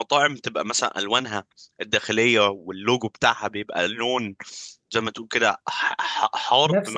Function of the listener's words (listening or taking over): taking over